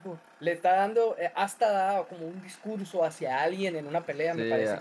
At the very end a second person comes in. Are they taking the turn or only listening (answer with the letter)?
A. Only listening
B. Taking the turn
B